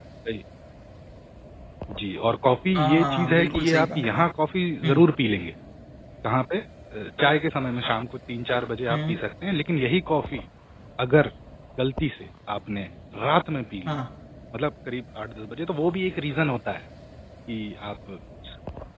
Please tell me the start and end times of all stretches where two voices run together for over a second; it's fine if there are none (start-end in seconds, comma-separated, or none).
2.8-4.3